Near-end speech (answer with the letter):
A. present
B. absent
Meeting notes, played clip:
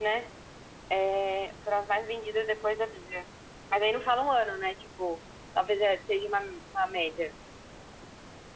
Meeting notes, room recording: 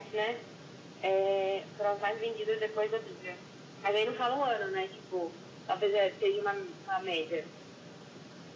B